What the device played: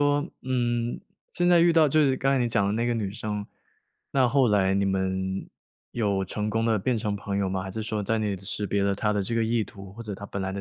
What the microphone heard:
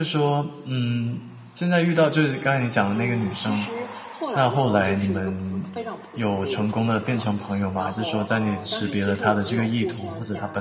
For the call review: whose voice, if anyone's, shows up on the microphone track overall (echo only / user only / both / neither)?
both